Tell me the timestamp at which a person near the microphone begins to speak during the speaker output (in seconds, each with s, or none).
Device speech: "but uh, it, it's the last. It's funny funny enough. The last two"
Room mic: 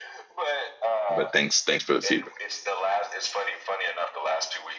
1.1 s